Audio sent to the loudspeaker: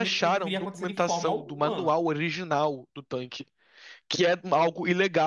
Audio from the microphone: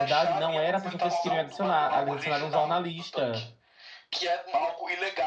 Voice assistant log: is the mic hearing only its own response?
No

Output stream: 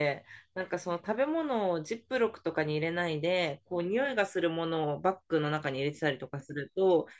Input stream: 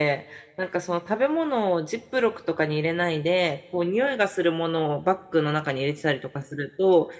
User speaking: No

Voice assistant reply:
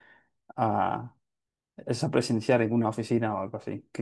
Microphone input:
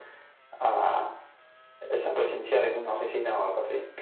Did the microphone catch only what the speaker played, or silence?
Yes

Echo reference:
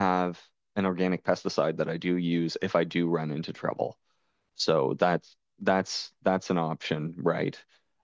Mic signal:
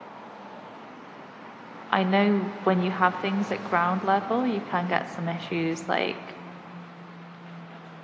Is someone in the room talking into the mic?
Yes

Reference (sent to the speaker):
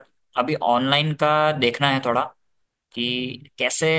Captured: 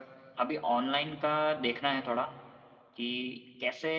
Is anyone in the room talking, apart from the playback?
No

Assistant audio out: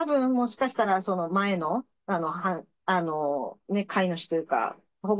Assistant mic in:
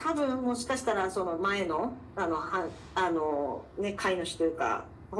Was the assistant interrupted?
No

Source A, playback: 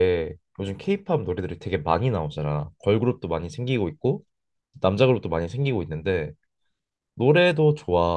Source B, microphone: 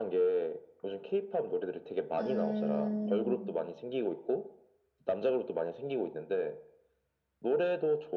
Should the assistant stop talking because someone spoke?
Yes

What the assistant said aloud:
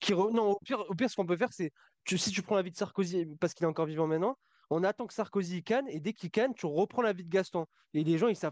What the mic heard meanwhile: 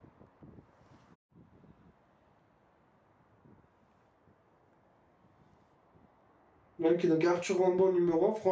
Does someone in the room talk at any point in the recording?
Yes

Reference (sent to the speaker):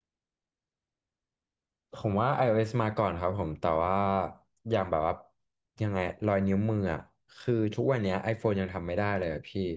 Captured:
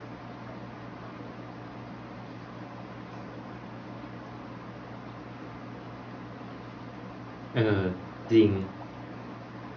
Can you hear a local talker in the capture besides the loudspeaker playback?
Yes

